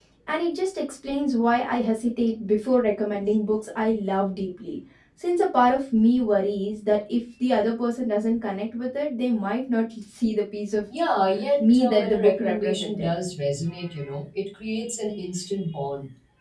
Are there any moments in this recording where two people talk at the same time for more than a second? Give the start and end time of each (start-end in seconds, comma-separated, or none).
11.6-13.1